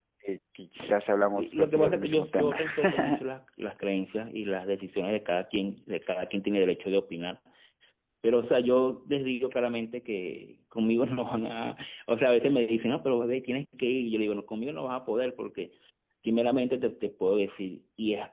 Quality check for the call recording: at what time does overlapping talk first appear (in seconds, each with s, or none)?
1.4 s